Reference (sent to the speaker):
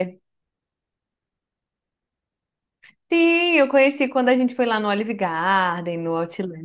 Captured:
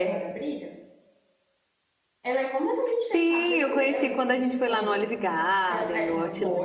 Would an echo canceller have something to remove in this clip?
Yes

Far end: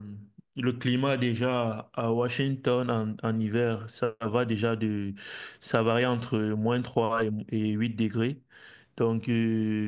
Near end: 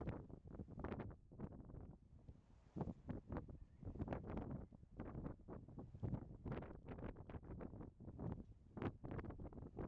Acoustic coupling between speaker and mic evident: No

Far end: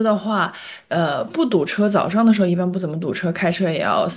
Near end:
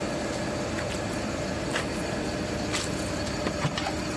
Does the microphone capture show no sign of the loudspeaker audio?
Yes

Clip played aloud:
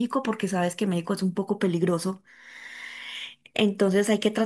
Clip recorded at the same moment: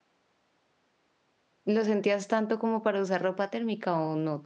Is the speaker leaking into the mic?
No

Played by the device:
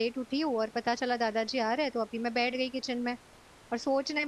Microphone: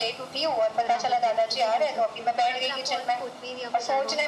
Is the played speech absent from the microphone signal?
No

